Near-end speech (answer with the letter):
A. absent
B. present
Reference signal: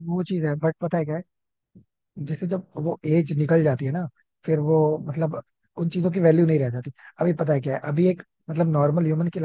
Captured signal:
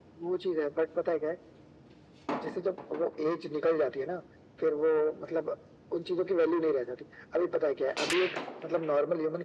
A